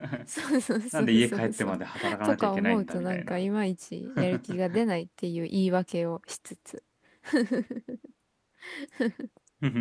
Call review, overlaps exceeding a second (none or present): present